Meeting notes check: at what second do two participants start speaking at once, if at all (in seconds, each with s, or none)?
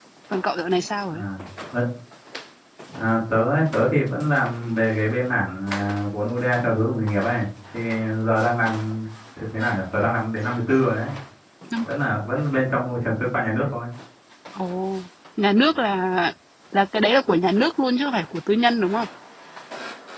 none